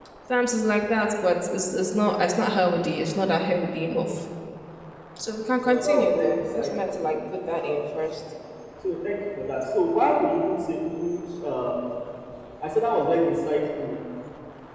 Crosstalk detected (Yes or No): Yes